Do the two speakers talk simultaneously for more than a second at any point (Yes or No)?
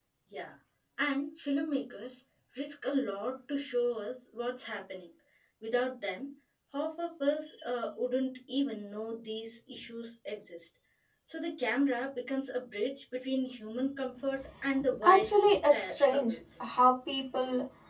Yes